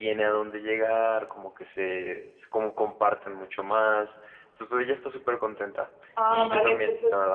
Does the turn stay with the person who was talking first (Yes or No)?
No